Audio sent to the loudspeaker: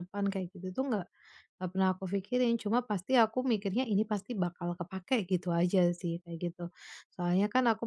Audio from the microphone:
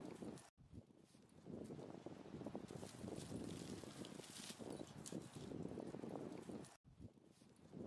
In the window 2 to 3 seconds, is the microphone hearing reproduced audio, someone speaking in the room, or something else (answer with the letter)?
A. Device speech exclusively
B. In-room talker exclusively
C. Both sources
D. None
D